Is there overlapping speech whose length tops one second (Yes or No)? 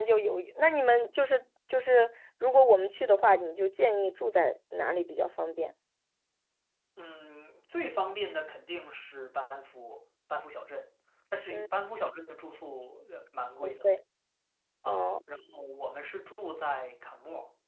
No